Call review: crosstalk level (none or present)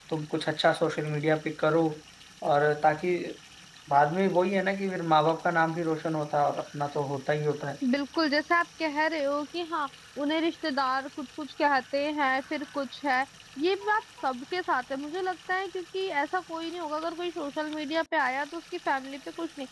none